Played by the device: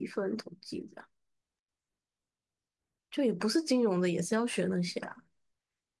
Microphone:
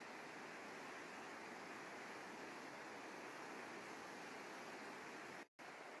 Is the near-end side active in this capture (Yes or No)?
No